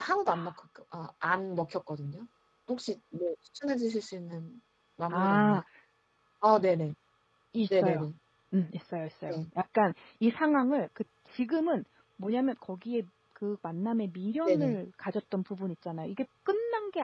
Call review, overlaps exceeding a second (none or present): none